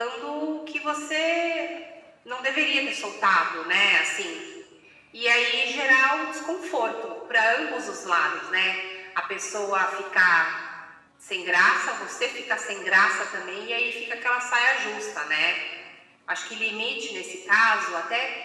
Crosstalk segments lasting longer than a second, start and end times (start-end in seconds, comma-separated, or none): none